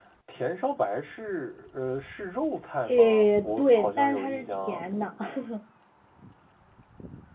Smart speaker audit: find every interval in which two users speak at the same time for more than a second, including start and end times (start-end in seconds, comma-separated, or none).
2.9-4.8